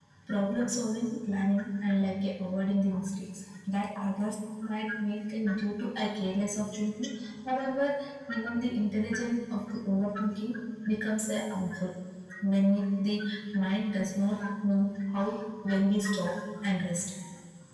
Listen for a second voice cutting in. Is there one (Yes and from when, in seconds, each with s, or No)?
No